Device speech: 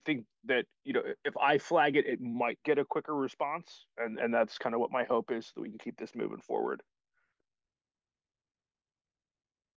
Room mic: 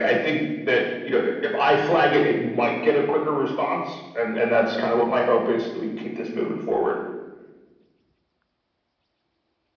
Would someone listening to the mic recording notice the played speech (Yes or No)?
Yes